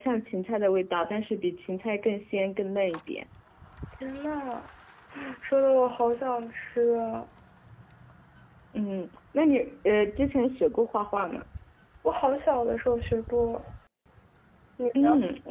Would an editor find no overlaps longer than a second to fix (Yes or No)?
Yes